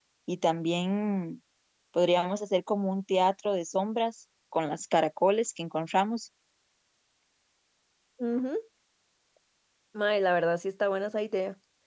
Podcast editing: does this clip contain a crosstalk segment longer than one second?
No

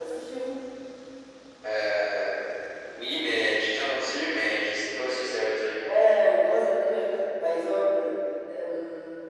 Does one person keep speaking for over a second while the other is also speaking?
No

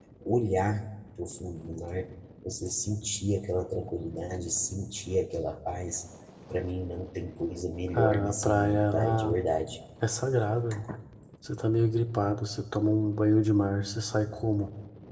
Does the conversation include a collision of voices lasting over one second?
Yes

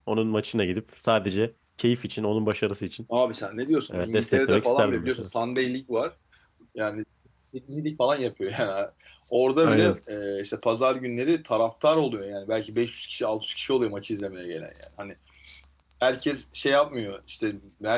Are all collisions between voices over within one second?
No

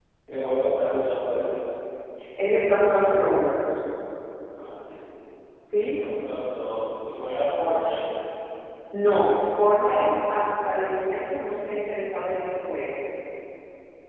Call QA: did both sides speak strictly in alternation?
Yes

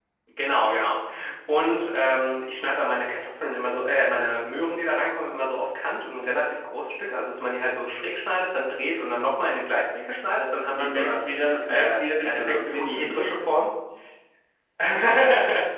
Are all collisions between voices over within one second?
No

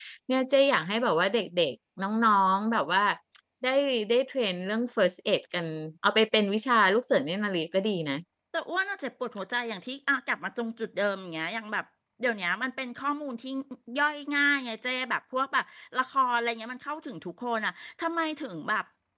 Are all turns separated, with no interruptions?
Yes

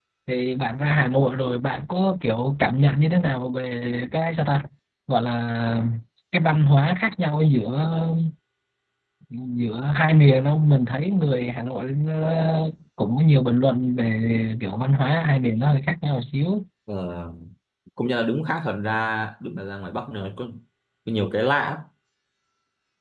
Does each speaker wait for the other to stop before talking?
Yes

